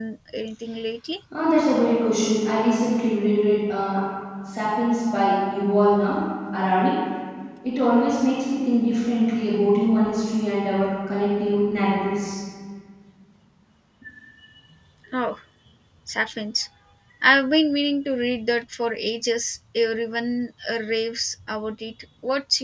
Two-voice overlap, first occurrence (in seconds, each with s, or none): none